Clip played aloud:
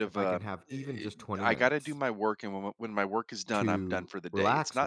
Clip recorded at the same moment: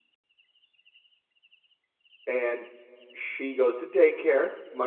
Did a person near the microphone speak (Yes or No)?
Yes